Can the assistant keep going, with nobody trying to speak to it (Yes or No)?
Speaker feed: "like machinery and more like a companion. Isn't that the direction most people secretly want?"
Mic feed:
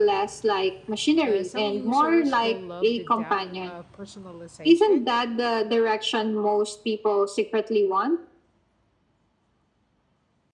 No